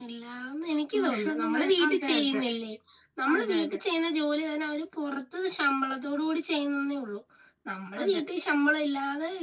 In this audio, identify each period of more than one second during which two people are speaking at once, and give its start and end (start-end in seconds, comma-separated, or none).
1.0-2.3